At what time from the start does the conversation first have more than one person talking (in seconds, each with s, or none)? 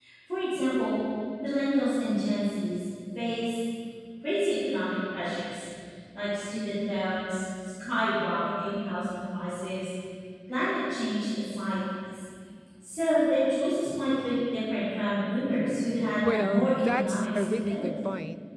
16.2 s